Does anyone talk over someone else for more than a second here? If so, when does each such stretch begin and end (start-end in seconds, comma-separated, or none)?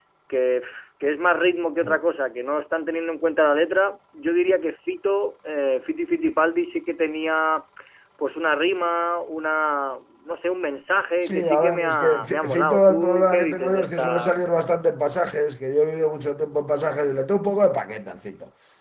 11.2-14.3